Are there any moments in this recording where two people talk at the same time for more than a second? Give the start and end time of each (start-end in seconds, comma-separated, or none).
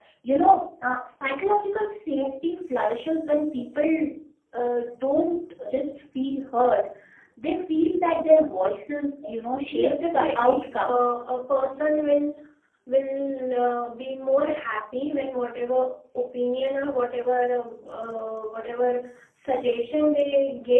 9.8-11.0